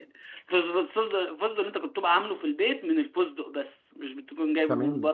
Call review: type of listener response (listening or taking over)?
taking over